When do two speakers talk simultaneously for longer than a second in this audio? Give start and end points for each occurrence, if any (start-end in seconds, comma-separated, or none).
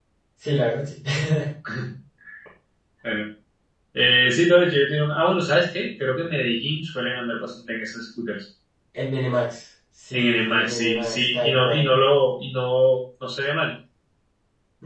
10.1-11.9